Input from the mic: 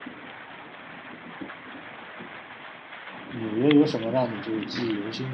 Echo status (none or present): none